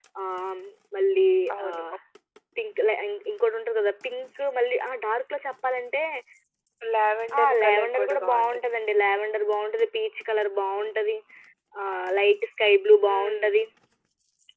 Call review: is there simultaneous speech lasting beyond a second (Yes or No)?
Yes